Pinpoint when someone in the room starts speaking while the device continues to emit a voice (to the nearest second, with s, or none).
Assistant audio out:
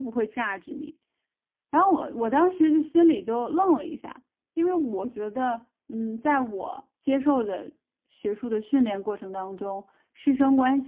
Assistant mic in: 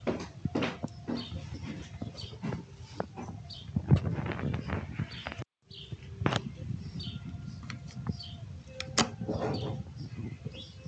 none